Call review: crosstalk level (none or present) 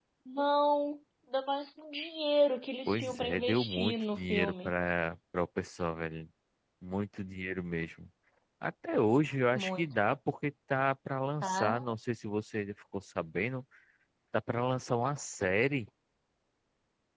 present